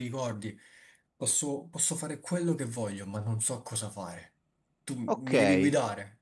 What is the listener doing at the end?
taking over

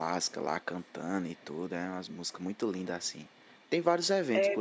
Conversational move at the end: listening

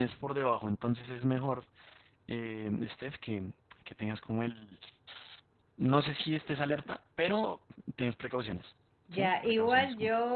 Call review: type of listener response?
taking over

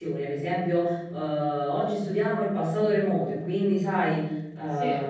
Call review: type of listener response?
listening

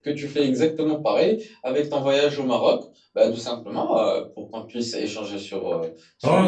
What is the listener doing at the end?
taking over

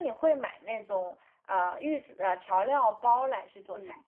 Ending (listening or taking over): taking over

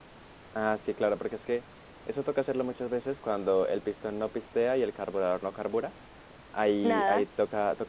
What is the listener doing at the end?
listening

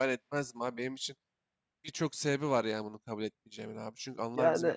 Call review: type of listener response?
listening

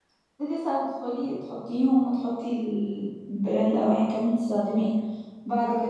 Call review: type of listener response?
listening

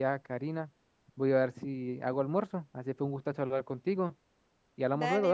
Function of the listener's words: taking over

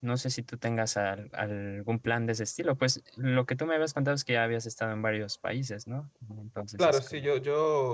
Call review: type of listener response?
taking over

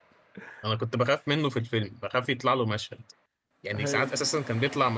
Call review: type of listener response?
listening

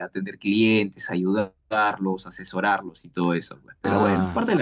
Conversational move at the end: taking over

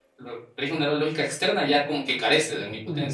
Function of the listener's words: taking over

